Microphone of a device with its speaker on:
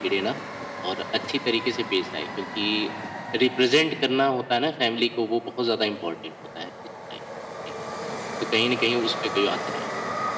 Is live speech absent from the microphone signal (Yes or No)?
Yes